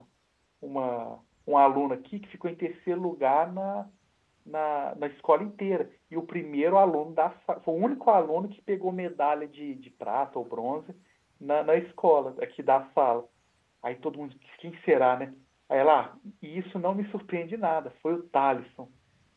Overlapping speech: No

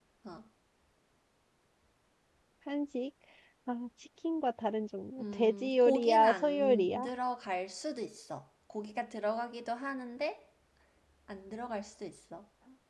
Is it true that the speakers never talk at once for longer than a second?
No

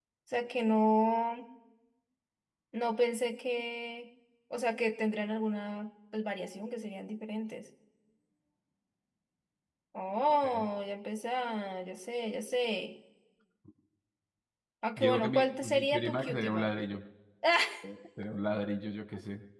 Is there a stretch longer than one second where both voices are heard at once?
Yes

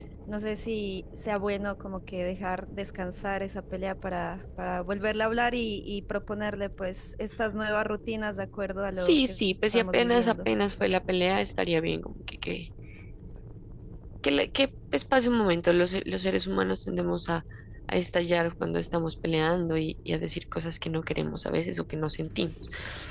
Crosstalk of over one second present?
Yes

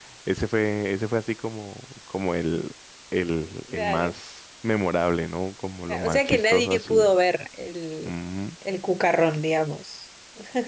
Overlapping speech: Yes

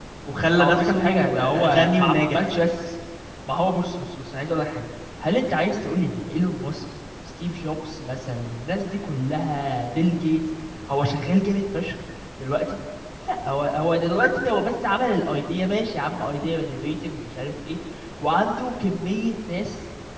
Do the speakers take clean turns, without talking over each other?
No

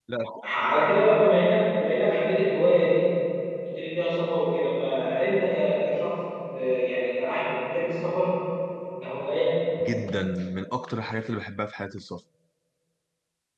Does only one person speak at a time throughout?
Yes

